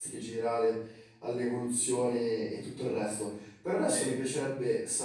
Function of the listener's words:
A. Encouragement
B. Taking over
A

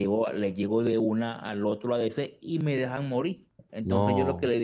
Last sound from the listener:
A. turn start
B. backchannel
B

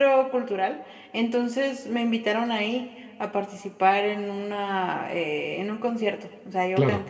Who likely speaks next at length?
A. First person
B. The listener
A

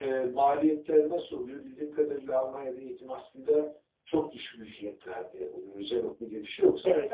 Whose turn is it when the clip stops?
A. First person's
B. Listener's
A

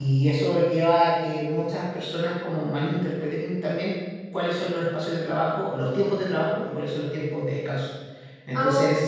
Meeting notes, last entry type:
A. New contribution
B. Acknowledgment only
B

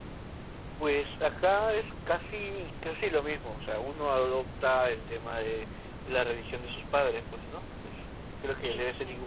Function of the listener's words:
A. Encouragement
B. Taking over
A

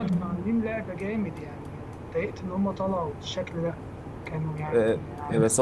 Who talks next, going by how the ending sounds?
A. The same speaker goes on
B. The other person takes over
B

